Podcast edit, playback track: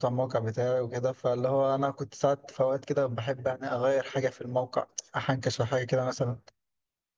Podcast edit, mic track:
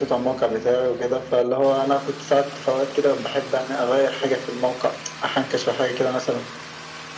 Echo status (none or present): present